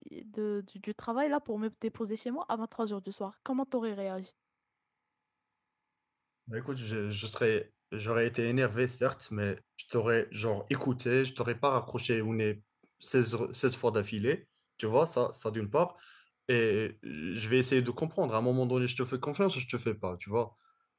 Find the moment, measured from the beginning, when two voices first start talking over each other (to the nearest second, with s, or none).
none